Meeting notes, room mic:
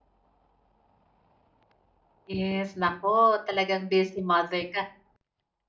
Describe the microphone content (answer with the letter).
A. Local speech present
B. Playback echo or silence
A